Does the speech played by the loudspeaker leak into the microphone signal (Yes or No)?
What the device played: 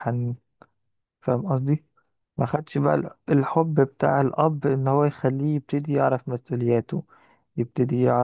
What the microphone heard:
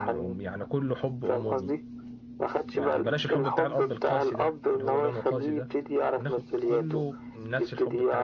Yes